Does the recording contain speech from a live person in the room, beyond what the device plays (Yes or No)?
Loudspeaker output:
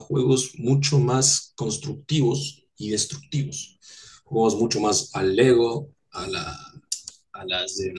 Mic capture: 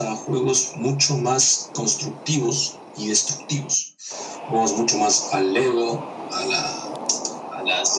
No